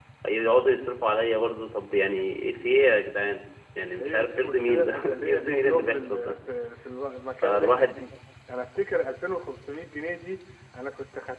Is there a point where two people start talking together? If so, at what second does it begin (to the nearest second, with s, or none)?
4 s